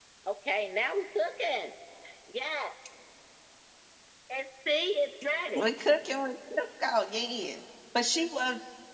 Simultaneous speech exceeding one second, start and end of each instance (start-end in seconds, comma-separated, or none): none